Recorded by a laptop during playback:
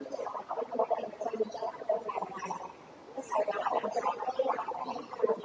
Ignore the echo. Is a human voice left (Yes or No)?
No